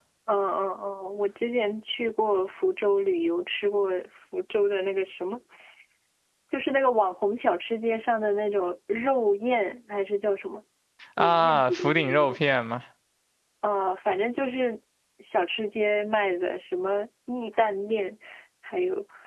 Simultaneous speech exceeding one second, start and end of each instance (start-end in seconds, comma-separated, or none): 11.2-12.4